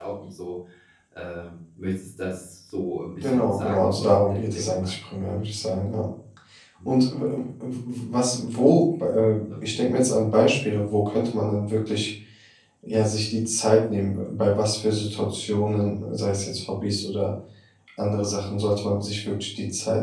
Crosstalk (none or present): present